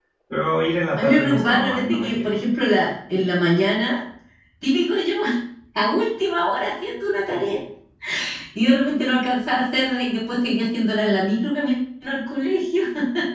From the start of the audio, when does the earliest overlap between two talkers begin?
0.9 s

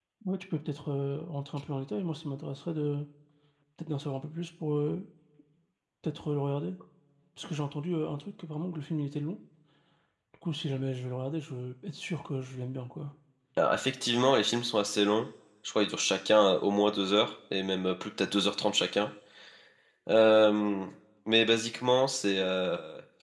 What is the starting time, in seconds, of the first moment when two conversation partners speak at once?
none

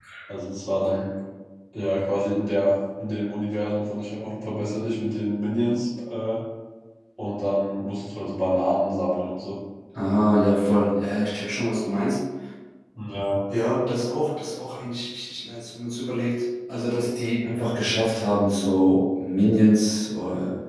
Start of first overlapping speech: none

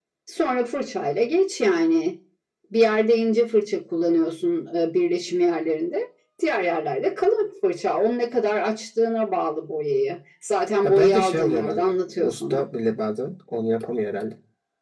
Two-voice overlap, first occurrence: 10.8 s

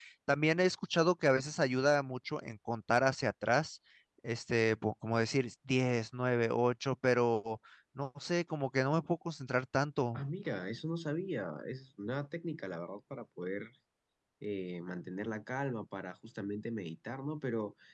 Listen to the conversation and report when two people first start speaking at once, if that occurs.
none

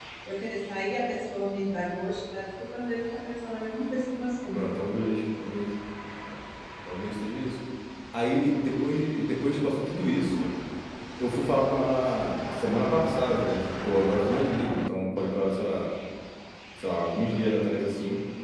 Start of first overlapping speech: none

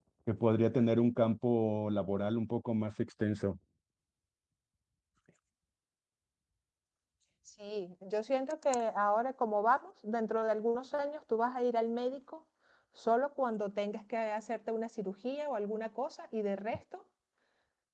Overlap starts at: none

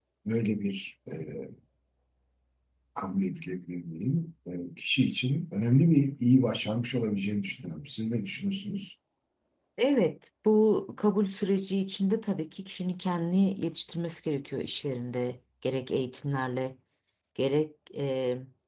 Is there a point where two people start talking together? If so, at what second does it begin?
none

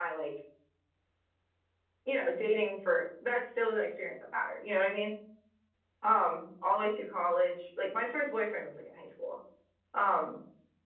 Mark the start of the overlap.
none

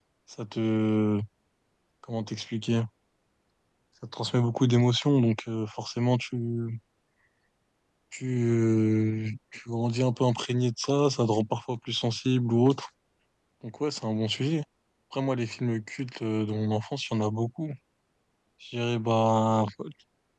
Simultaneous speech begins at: none

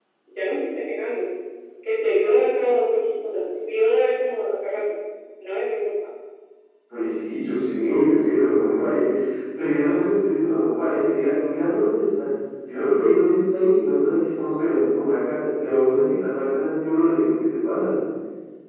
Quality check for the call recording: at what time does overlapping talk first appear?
none

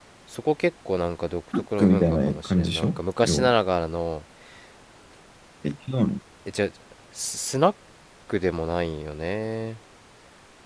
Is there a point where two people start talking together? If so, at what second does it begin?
1.5 s

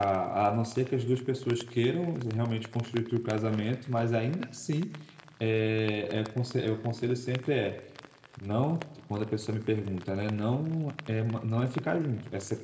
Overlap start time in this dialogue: none

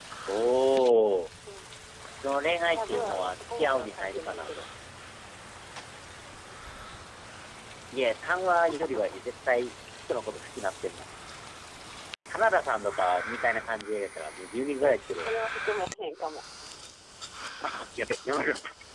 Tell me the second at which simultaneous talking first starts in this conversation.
2.7 s

